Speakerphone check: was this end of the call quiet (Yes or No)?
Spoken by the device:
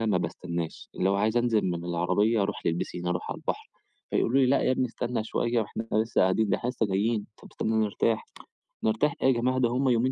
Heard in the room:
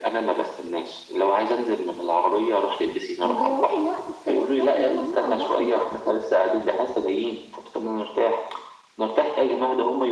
No